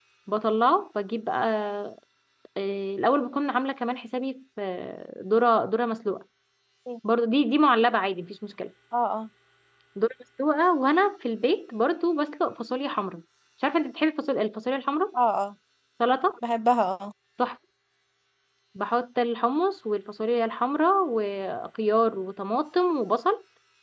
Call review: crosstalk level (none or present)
none